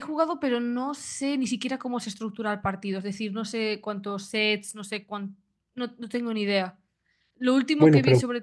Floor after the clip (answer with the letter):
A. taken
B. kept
B